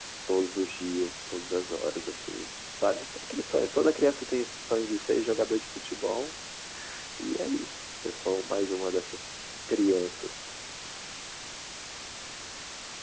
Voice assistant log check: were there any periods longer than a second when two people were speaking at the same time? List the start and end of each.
none

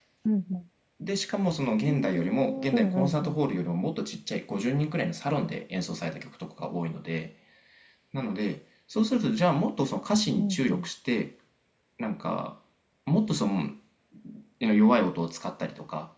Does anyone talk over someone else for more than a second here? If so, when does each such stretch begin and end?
1.8-3.6

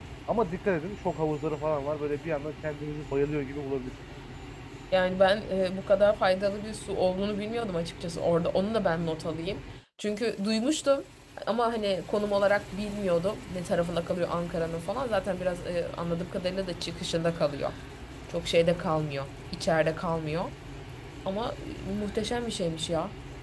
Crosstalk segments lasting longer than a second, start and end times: none

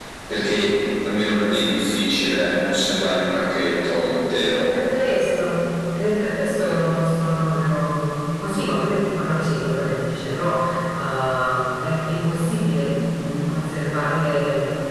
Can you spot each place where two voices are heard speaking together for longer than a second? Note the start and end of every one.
none

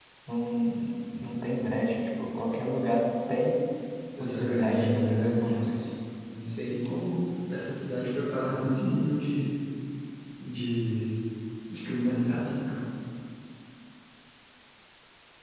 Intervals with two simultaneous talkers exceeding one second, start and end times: 4.2-5.8

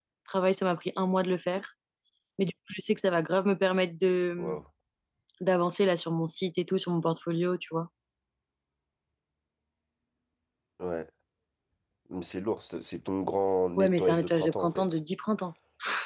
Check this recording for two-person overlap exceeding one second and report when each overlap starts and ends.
13.8-15.0

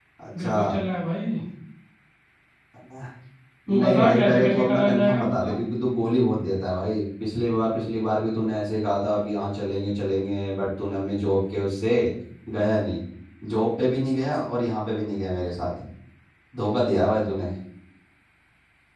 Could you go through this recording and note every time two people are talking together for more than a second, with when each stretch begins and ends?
3.7-5.6

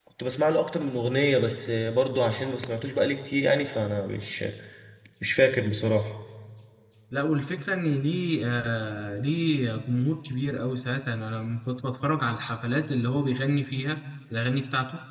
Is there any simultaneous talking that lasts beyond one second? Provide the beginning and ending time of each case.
none

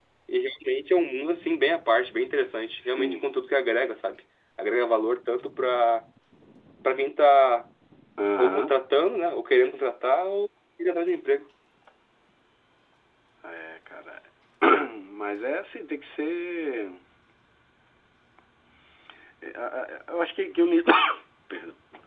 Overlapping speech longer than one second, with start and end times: none

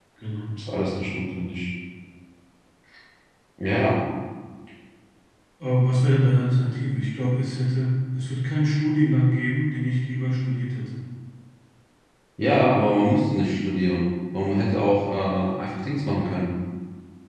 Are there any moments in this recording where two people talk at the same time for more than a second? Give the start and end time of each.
none

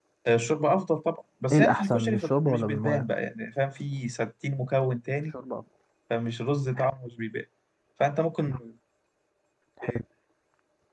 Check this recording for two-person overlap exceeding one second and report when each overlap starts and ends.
1.5-3.0

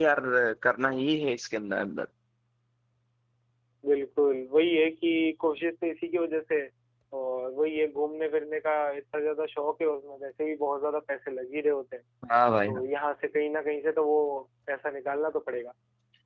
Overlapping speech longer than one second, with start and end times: none

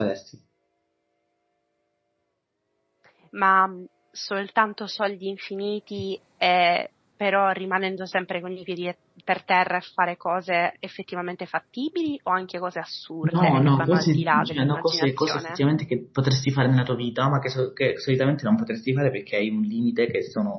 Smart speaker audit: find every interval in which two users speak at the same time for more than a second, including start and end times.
13.3-15.6

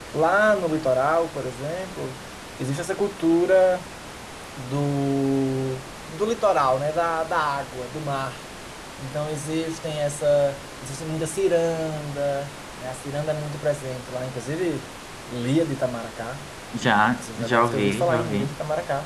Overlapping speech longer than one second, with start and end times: 17.1-18.5

